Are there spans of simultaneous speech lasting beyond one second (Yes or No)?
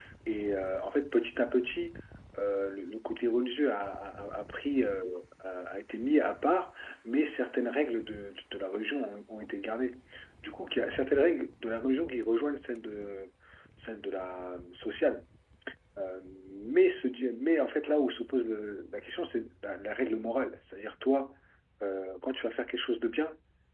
No